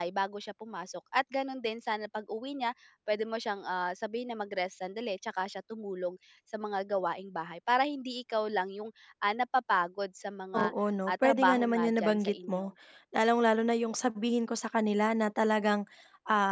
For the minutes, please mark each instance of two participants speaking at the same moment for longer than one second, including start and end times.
11.1-12.7

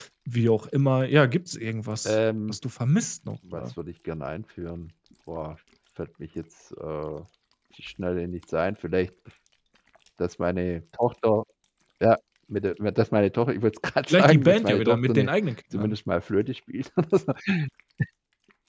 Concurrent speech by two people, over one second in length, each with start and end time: 14.1-15.3

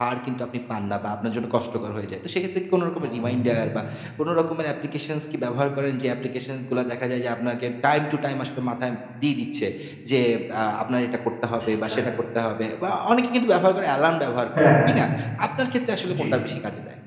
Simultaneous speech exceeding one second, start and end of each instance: none

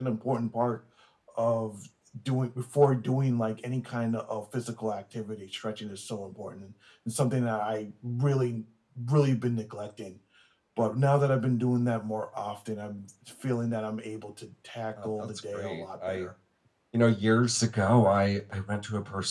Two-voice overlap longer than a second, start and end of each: 15.0-16.3

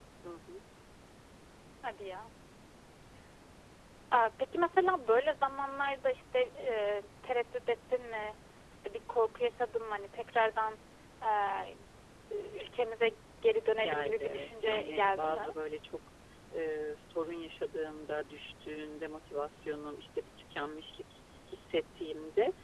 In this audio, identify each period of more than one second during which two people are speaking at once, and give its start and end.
13.8-15.5

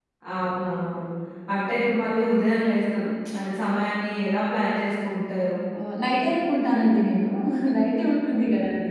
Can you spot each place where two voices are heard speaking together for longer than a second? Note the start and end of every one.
none

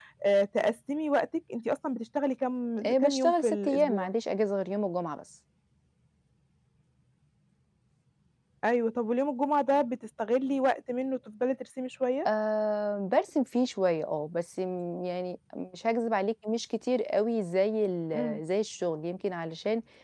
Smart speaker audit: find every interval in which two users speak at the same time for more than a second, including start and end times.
2.8-4.1

